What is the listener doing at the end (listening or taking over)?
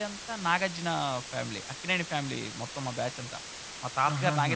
taking over